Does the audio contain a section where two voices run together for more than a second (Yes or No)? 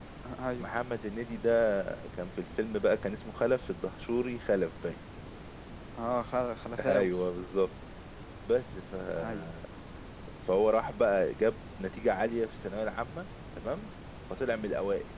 No